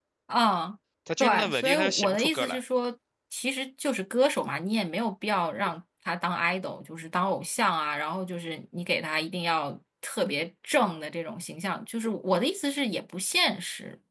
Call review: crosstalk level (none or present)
present